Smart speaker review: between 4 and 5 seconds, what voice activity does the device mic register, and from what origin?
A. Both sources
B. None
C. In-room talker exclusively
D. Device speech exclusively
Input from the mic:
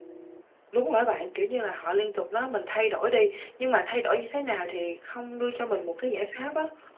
C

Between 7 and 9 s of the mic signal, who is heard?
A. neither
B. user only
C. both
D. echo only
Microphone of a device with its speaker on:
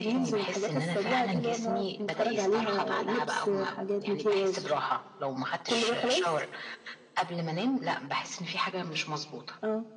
D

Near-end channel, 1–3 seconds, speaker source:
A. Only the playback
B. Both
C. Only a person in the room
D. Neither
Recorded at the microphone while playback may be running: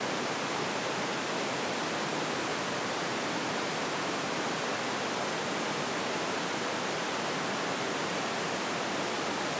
D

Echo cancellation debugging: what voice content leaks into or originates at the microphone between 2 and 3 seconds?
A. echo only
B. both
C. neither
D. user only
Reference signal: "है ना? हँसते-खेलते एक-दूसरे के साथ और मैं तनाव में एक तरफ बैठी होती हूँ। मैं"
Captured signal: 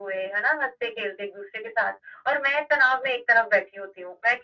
A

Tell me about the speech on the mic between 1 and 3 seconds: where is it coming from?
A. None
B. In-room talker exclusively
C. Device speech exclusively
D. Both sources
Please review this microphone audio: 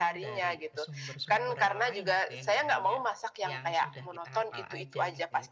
D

